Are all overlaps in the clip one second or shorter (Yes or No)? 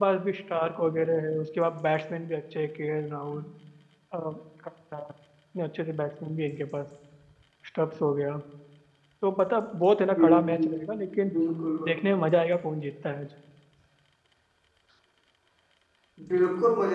Yes